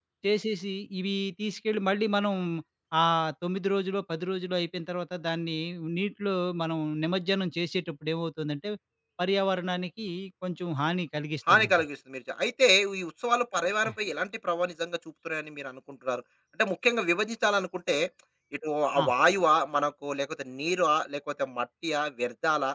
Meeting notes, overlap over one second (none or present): none